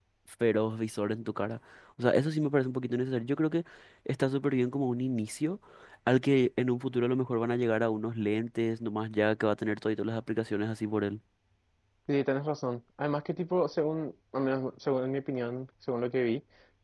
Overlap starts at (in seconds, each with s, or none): none